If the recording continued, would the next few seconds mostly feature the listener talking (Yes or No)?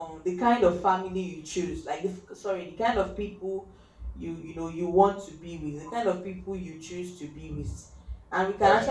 No